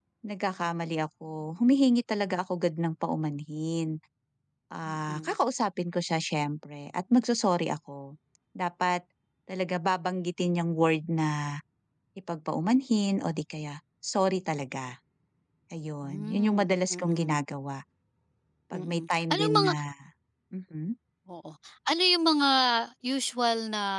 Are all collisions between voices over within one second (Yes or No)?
No